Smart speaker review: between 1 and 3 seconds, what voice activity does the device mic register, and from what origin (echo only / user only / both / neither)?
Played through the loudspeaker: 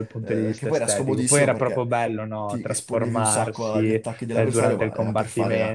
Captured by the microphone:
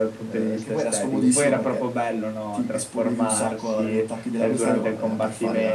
echo only